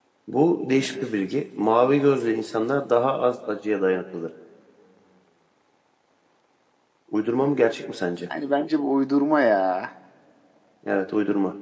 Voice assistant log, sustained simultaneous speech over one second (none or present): none